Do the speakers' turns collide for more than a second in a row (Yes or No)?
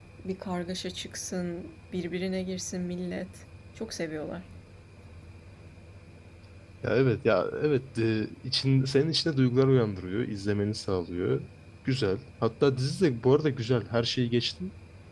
No